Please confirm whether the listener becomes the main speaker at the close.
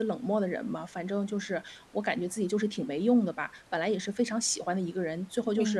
No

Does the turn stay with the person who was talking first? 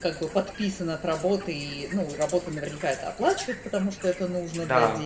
Yes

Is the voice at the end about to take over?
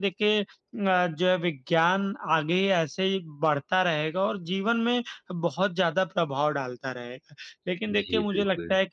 No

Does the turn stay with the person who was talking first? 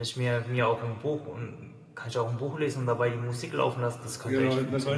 No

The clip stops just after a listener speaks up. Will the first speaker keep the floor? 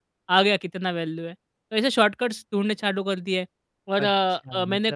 No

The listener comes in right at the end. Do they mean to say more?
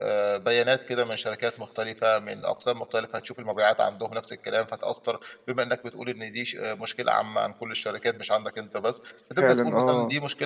No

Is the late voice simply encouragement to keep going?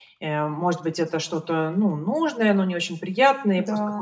Yes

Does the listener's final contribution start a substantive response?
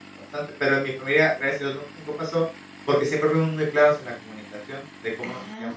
Yes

